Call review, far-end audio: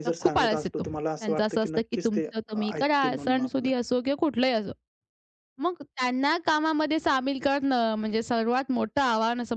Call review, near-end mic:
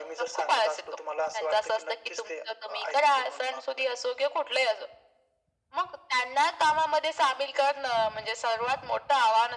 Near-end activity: none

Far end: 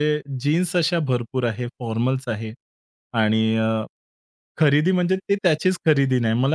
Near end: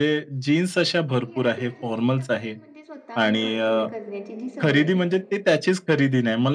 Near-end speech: present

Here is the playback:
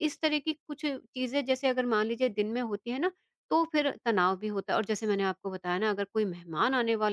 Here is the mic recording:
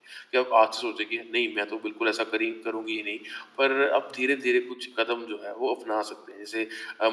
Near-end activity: present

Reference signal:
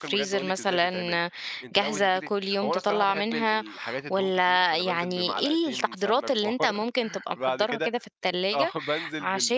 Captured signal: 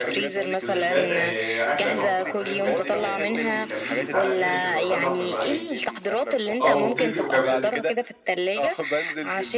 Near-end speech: present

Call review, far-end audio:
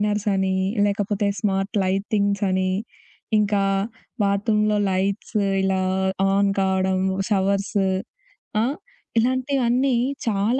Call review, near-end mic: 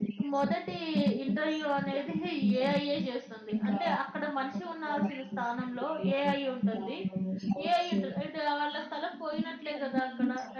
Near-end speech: present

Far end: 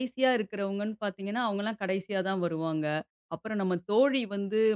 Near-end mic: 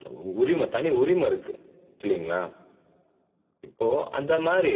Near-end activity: present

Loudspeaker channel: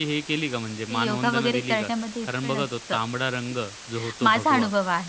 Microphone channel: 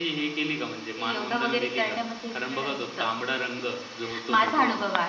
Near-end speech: none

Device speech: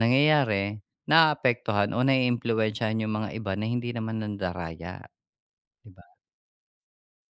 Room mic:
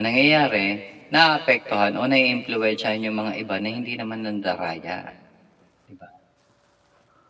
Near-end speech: none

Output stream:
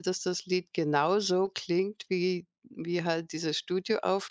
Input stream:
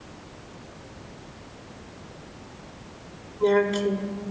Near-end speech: present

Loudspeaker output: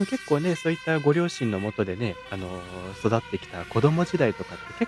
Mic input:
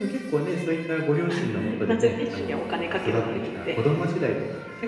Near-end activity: present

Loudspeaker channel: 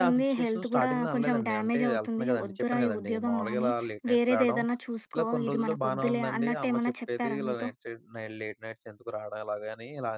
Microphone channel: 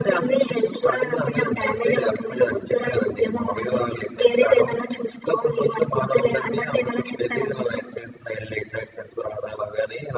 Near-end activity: none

